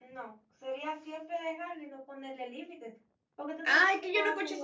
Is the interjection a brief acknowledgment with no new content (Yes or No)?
No